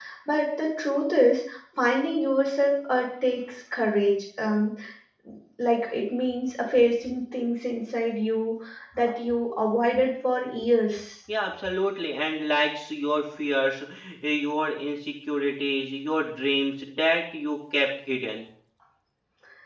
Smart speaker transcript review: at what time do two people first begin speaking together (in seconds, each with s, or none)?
none